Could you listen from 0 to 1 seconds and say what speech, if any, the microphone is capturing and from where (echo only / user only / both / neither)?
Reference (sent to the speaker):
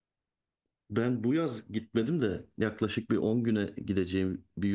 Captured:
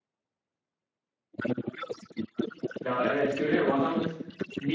neither